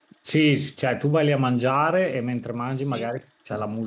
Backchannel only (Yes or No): Yes